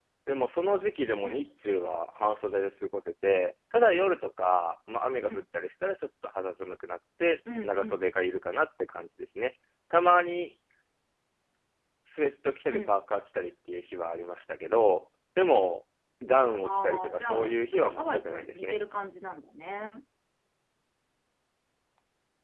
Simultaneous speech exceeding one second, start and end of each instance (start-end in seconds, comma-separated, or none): 16.6-18.8